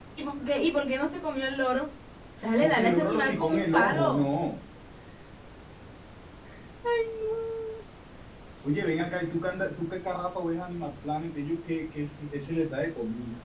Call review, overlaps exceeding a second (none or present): present